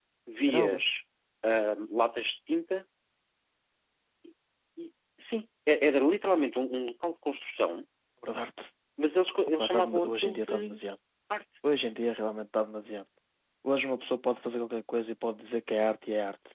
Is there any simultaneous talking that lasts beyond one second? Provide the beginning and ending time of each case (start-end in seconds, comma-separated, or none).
9.6-10.8